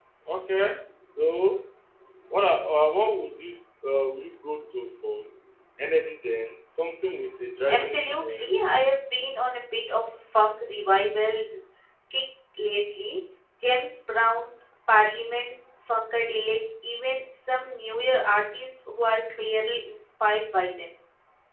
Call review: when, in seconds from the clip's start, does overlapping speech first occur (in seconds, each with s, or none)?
7.7 s